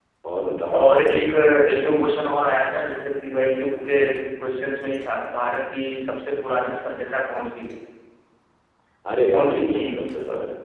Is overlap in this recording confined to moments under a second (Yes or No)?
Yes